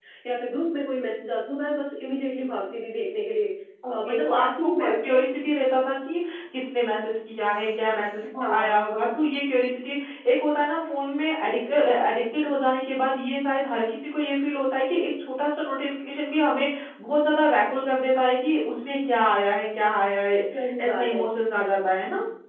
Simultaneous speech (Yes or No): Yes